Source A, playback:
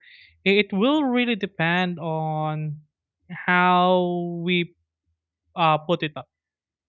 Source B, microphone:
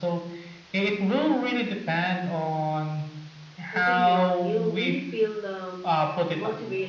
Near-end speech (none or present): present